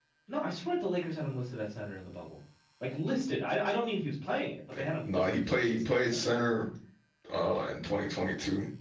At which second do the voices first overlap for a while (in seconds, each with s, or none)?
4.7 s